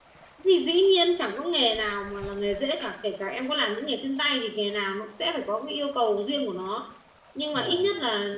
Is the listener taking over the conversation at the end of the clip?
No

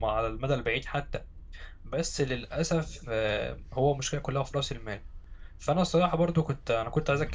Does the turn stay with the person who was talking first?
Yes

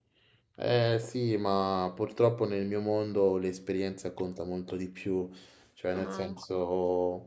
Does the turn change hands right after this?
No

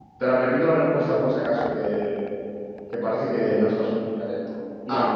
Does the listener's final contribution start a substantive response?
No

